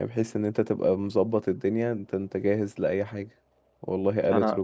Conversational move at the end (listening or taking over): listening